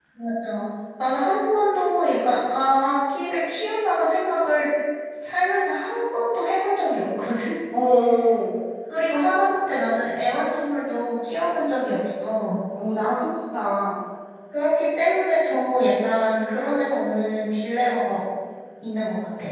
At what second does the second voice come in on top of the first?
none

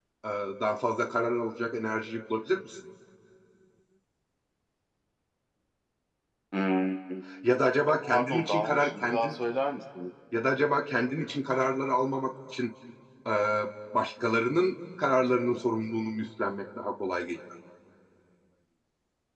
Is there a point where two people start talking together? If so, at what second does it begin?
8.1 s

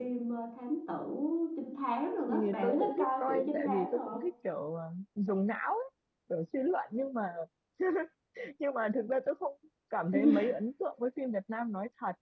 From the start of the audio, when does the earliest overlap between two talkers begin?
2.3 s

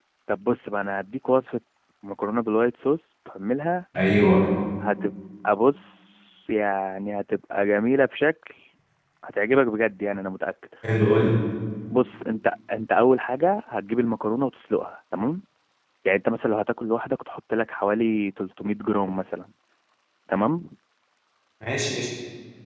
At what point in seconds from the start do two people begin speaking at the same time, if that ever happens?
none

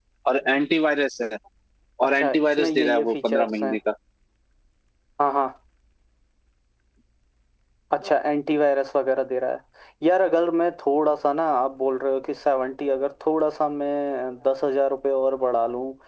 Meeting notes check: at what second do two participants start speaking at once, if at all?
2.0 s

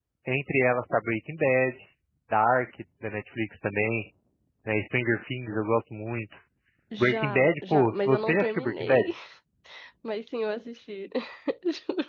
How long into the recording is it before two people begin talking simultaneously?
7.0 s

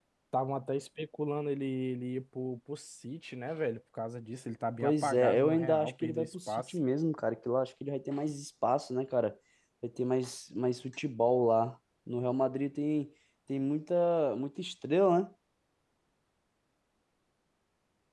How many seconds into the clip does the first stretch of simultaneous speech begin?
4.8 s

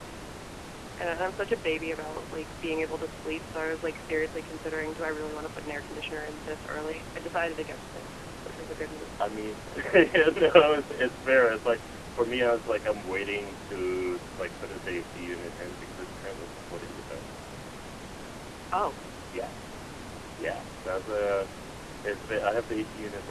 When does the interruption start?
none

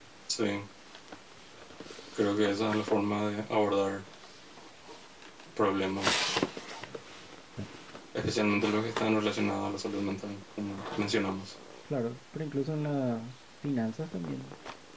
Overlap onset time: none

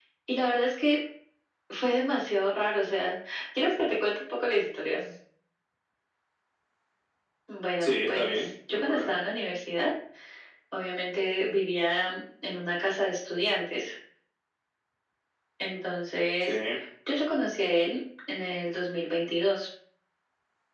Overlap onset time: 7.8 s

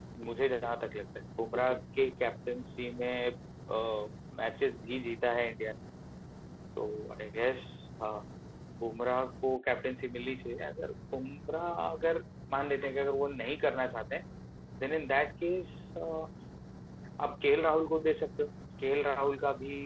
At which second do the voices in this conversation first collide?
none

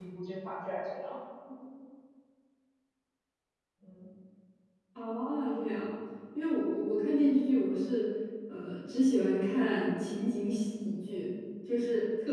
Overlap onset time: none

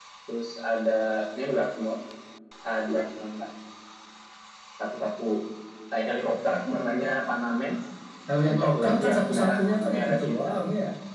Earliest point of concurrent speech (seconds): 8.4 s

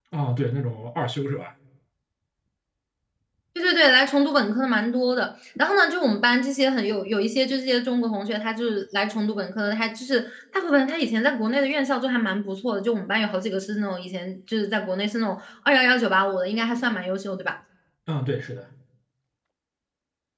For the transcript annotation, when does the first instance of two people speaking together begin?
none

